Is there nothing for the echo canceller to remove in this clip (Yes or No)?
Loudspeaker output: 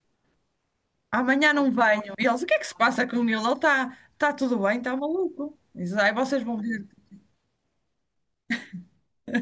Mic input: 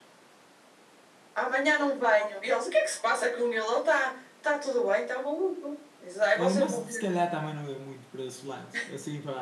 No